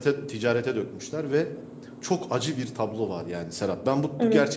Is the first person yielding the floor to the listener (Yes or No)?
No